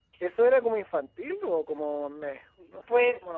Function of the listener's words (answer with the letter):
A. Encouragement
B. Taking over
B